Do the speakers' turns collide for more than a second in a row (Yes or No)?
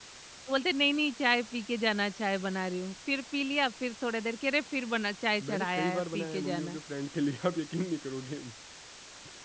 Yes